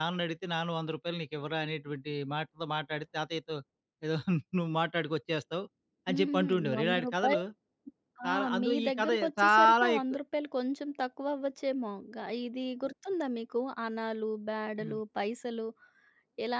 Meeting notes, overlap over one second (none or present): present